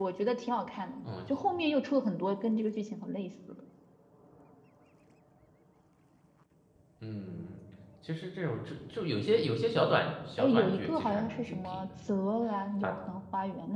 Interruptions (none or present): present